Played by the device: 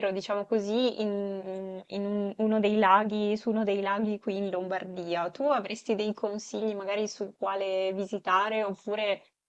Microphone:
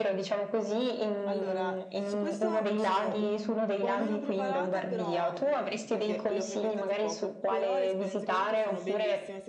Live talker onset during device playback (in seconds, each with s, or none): 1.3 s